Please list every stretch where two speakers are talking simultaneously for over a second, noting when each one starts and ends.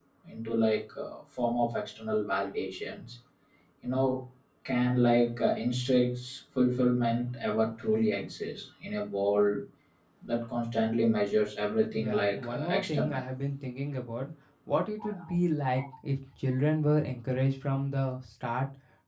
12.0-13.2

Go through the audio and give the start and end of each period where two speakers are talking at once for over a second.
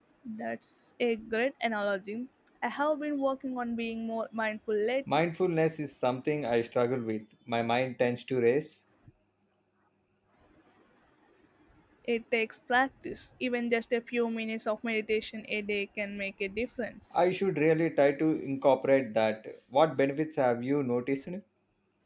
none

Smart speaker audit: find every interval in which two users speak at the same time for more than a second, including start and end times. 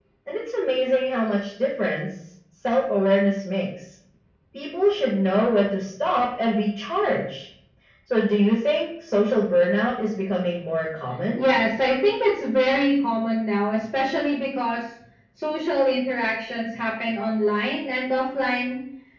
none

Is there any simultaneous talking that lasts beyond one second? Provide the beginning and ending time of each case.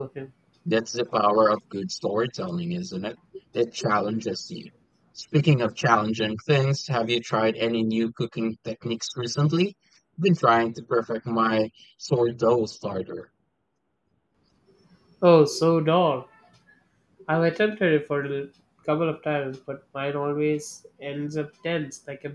none

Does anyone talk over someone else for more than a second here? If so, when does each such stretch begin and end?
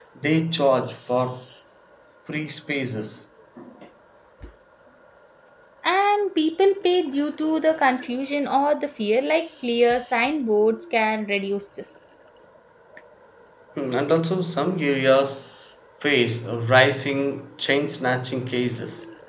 none

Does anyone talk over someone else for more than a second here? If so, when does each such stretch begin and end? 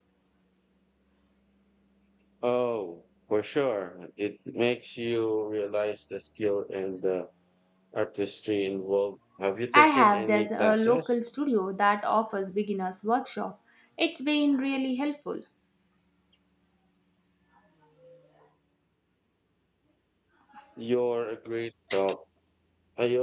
9.7-11.2

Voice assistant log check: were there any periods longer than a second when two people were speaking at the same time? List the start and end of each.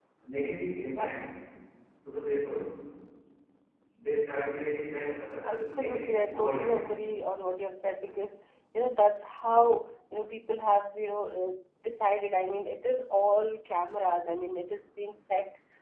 5.4-6.8

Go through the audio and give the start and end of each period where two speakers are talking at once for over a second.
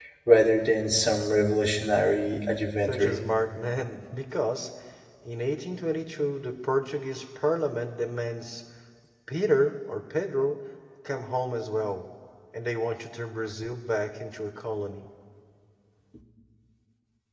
none

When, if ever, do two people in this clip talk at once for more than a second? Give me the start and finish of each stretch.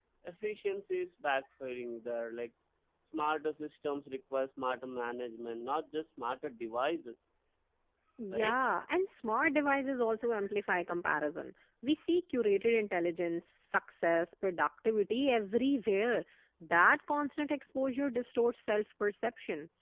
none

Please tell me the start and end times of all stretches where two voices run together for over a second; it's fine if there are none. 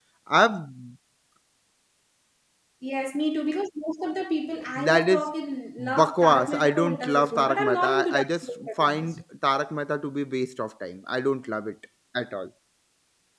5.8-9.1

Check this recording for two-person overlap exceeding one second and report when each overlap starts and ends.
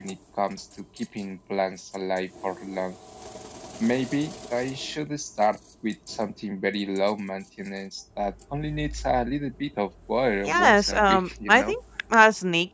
10.4-11.8

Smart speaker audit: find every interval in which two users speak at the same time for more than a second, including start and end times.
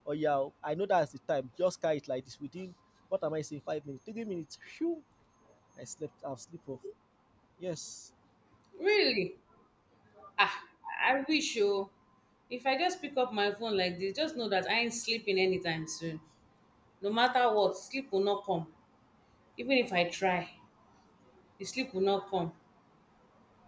none

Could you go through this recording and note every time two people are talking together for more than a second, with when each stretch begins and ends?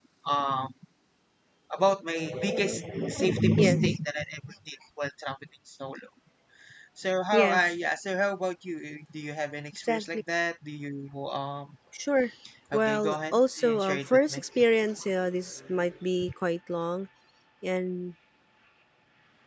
12.7-14.4

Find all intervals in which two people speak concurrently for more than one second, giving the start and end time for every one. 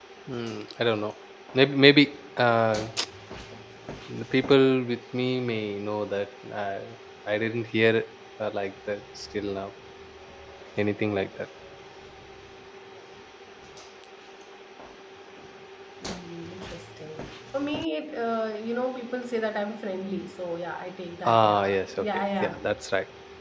21.2-22.6

